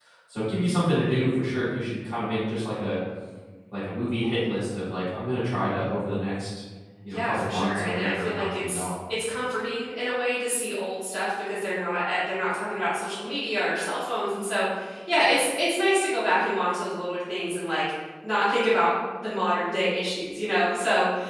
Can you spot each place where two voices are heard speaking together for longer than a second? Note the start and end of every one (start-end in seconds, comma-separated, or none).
7.1-8.9